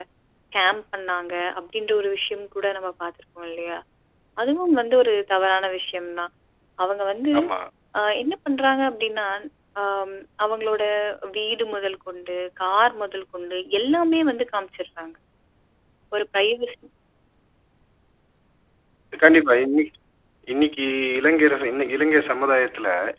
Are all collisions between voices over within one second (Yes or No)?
Yes